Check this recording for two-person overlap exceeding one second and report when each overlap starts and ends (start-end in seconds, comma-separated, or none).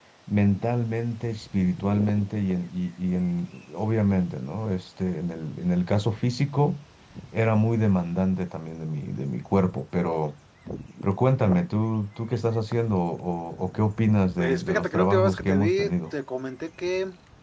14.4-15.9